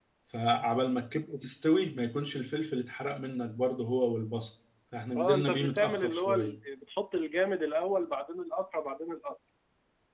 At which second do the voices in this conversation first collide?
5.2 s

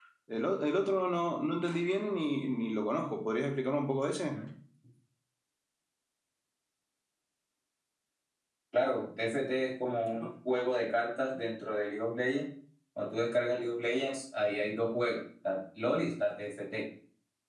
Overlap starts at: none

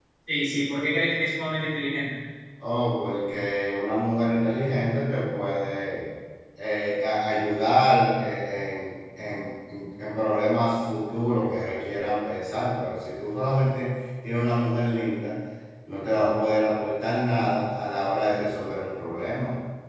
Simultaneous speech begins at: none

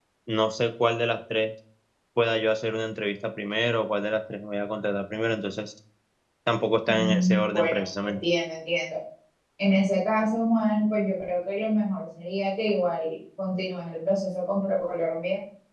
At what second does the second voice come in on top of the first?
6.9 s

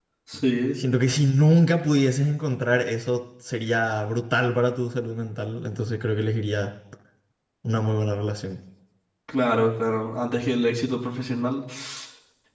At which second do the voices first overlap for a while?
none

